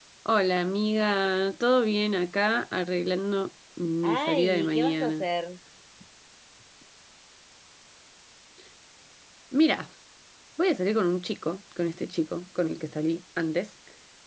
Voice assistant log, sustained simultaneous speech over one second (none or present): present